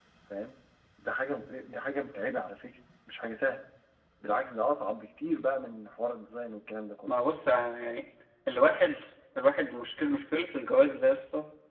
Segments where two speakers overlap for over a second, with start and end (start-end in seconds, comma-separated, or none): none